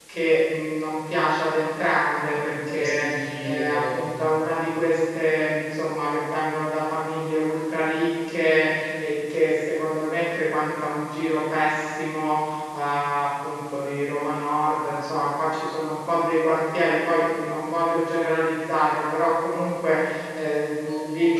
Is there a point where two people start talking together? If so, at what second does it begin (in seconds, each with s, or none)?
2.4 s